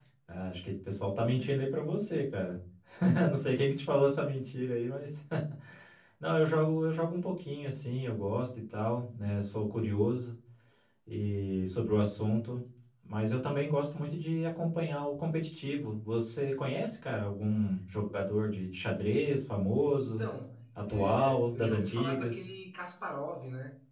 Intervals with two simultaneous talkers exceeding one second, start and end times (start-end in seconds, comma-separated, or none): 20.8-22.3